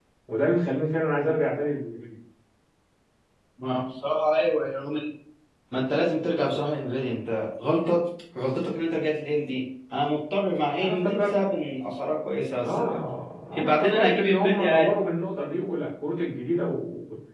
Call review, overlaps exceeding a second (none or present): present